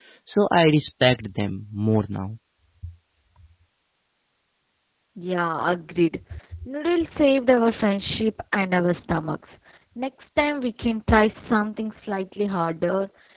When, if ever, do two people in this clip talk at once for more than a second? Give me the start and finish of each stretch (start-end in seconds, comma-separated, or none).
none